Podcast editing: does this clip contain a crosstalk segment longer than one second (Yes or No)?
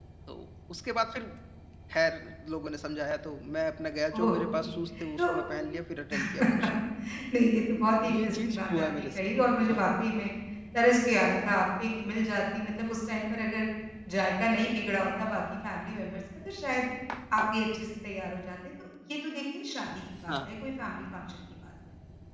Yes